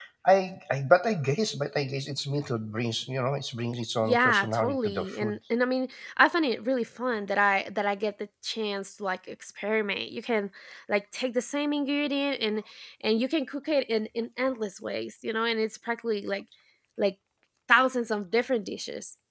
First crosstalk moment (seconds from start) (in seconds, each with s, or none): 4.0 s